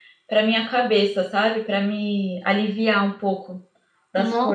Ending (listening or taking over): taking over